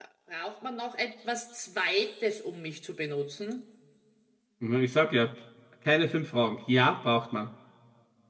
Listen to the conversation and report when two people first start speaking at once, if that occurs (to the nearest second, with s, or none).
none